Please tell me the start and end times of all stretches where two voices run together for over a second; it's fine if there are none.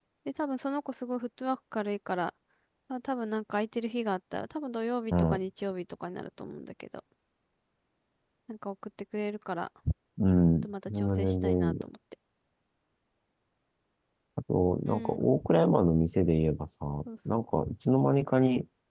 10.6-11.8

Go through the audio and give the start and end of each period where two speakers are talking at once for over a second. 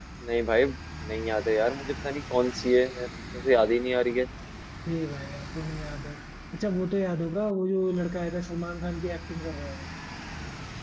none

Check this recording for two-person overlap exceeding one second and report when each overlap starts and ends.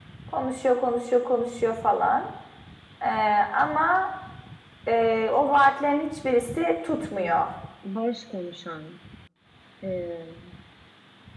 none

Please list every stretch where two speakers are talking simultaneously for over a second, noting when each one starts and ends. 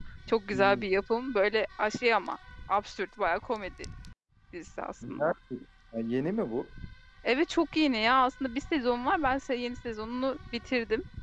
none

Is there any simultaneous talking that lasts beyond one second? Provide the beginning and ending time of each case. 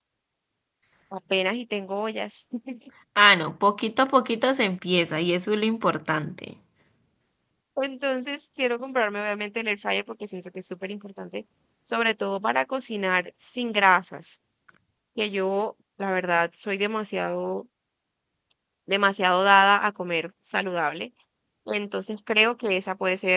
none

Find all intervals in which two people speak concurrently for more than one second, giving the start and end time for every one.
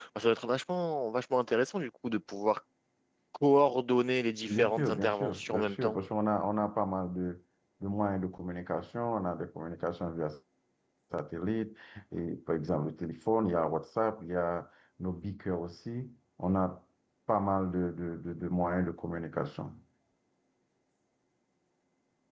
4.5-6.0

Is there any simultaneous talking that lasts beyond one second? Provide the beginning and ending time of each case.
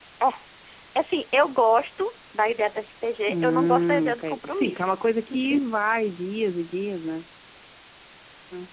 3.3-4.9

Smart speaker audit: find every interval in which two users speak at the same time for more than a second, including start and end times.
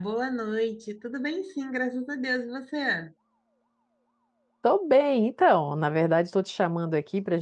none

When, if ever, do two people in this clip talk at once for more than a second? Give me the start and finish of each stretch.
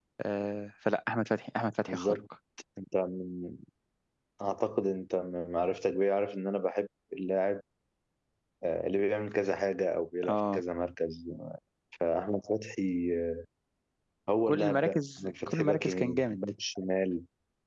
14.5-16.4

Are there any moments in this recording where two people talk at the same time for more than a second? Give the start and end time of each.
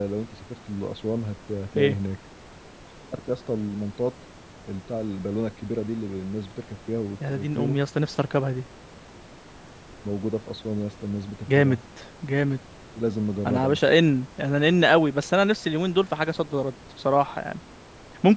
none

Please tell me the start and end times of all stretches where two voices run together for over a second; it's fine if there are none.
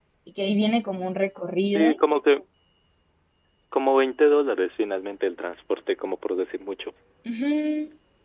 none

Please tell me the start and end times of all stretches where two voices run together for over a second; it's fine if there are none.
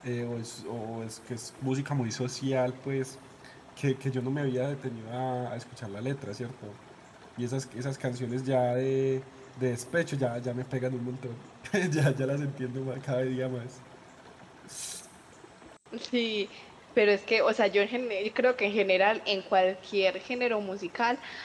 none

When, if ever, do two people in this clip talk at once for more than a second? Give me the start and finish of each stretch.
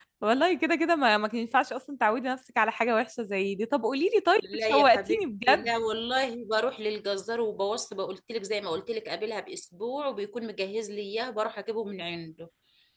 4.4-5.7

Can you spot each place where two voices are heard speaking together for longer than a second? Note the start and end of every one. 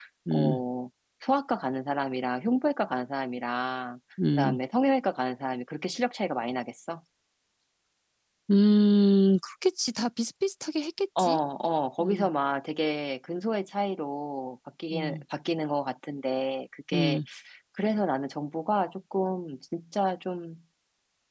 none

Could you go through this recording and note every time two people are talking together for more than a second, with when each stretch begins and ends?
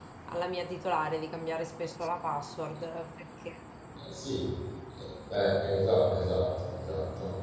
none

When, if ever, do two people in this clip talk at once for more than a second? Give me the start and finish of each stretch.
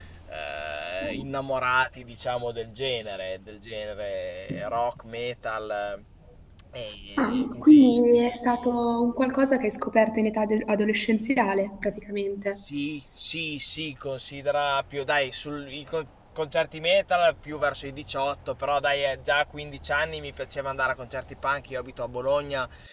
7.2-8.4

